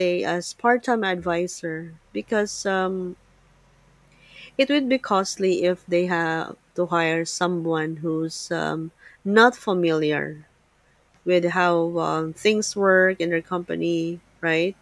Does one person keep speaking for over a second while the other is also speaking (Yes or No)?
No